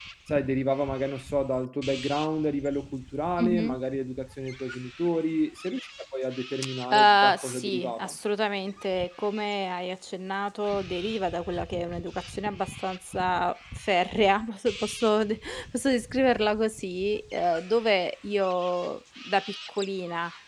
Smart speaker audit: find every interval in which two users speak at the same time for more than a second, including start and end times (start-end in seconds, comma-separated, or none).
6.9-8.2